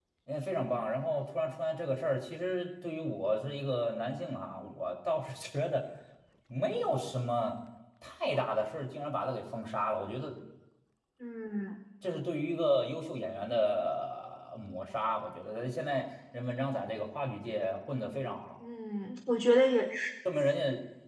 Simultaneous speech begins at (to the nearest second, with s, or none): none